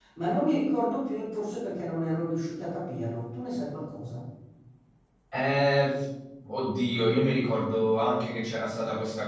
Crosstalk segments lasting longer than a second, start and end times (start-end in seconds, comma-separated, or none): none